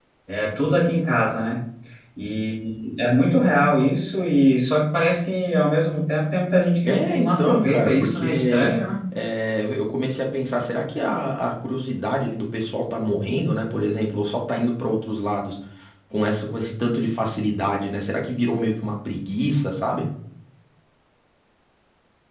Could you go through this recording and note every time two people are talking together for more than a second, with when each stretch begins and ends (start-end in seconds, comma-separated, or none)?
6.8-8.7